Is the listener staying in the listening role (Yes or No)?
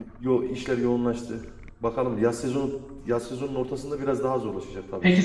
No